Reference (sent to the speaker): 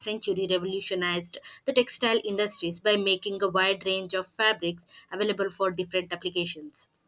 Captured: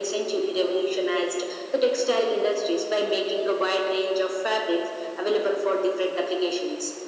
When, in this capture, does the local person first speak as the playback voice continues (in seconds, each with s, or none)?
none